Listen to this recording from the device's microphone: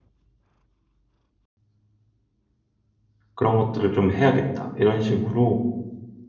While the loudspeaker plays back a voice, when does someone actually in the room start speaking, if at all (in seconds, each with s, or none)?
3.4 s